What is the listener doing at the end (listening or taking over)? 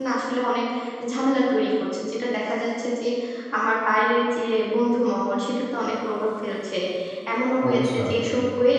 listening